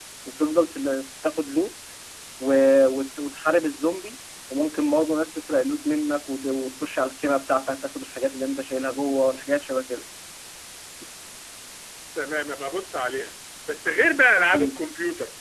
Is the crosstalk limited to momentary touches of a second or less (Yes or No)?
Yes